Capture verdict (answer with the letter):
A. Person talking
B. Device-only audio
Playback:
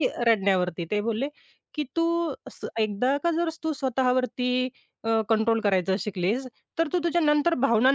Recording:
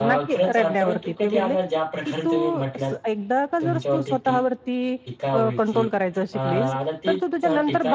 A